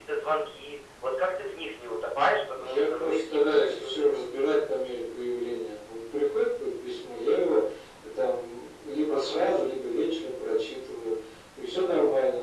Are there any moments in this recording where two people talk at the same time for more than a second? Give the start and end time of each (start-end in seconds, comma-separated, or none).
2.6-4.1